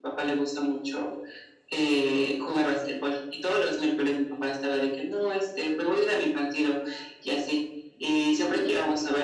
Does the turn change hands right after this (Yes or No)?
No